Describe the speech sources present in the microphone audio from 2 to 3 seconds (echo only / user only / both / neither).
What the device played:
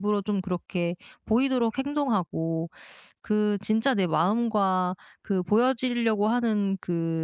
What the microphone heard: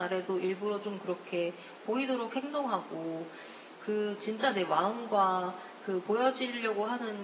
echo only